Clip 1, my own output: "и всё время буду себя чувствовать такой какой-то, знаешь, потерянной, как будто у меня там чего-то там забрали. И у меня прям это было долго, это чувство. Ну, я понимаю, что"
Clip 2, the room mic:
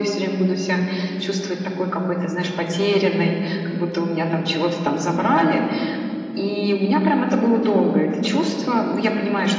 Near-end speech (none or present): none